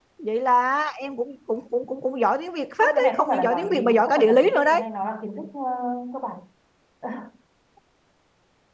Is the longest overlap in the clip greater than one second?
Yes, from 2.8 s

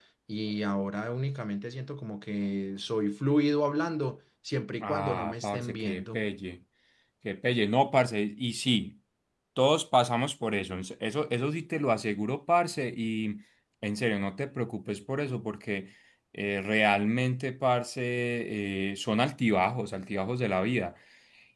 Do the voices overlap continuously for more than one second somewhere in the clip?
Yes, from 4.8 s

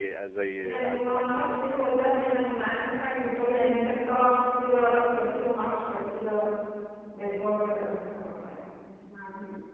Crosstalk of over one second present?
Yes, from 0.6 s

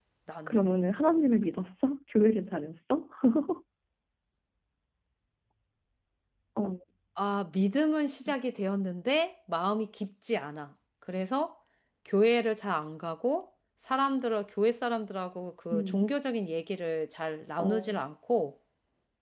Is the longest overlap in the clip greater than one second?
No

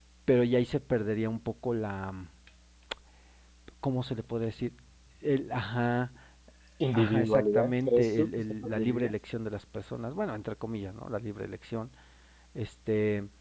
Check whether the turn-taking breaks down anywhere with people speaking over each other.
Yes, from 6.9 s

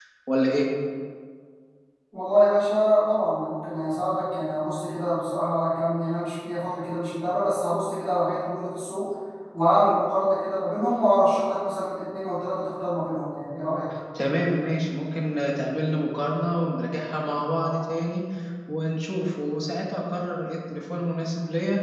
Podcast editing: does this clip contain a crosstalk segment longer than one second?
No

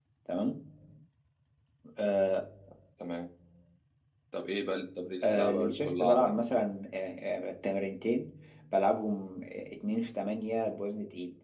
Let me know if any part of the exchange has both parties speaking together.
Yes, from 5.2 s

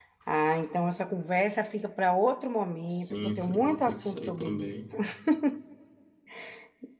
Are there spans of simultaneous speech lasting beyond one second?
Yes, from 2.9 s

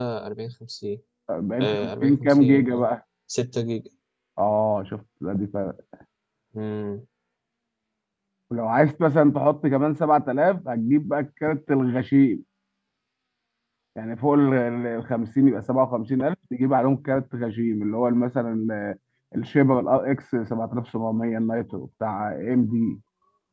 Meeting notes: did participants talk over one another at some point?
Yes, from 1.6 s

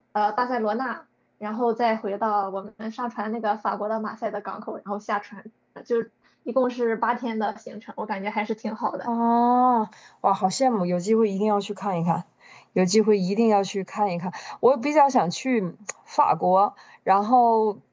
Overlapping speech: No

